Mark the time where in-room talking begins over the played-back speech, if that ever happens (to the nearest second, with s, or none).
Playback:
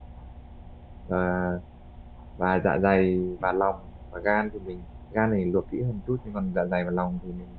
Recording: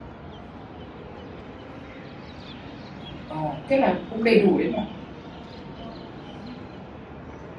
3 s